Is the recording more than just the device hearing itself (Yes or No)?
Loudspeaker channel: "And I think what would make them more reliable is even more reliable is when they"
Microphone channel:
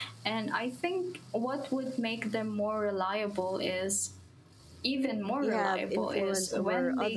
Yes